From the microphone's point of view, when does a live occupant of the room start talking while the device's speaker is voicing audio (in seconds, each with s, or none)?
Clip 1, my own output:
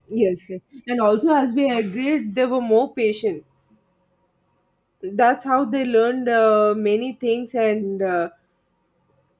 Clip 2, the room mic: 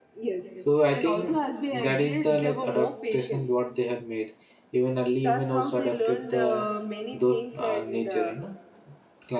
0.5 s